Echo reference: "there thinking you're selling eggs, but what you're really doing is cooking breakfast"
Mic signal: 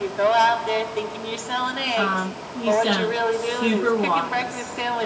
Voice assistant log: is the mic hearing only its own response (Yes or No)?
No